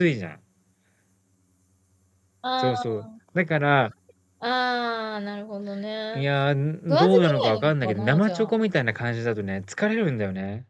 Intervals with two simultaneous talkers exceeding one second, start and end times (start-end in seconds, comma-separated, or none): 6.9-8.5